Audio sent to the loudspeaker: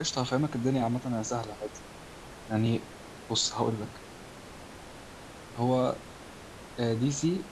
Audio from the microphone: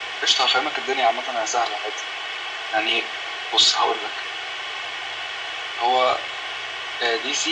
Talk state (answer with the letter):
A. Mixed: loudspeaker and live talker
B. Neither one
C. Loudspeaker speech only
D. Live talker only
C